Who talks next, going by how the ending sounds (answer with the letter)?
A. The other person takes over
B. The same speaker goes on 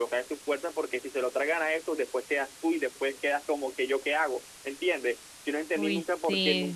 B